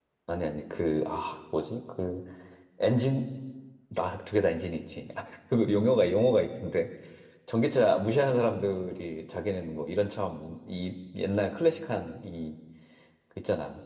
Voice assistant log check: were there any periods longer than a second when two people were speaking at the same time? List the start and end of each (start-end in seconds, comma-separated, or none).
none